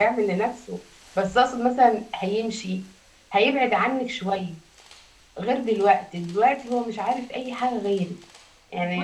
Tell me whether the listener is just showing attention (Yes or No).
No